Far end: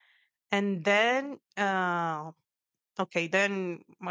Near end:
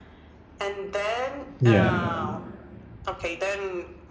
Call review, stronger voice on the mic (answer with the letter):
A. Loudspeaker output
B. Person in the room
B